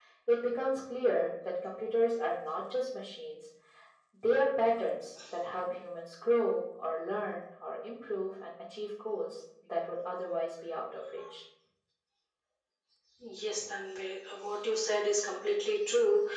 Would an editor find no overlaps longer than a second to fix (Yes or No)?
Yes